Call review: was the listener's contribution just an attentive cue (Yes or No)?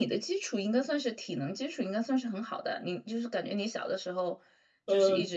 No